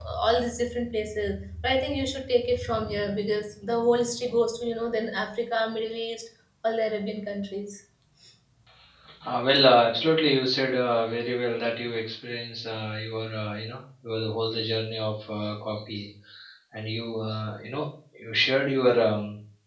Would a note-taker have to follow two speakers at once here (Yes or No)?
No